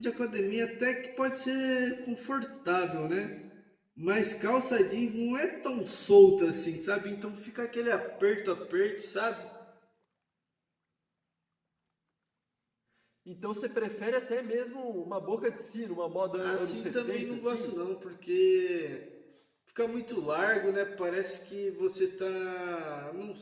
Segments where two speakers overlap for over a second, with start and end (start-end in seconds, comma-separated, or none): 16.4-17.8